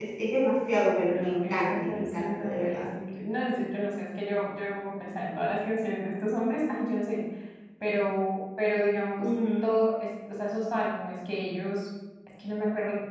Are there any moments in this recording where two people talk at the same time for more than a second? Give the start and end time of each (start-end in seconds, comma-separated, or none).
0.8-2.8